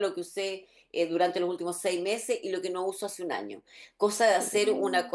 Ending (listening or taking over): listening